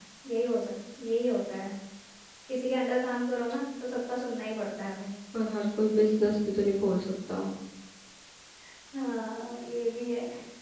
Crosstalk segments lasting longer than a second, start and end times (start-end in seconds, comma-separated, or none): none